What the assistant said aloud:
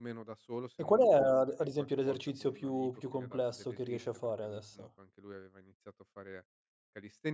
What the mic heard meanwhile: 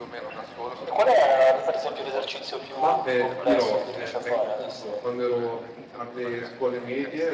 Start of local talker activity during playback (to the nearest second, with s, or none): 3 s